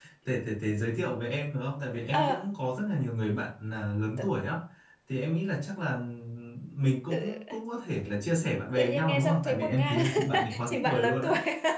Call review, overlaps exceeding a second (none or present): present